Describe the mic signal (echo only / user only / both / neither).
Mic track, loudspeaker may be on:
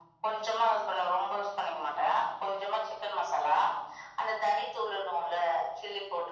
echo only